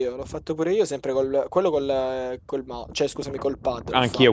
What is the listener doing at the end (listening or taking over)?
taking over